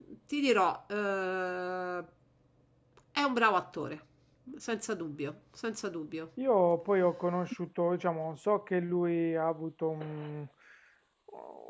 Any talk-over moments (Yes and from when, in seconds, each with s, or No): No